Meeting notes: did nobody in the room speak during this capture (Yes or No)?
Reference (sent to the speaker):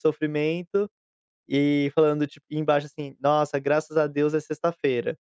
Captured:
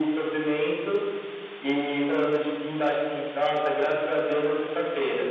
Yes